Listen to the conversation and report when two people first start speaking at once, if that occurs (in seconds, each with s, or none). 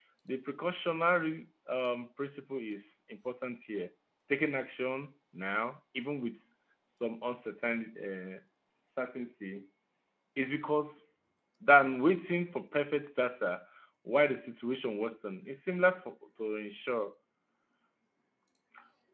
none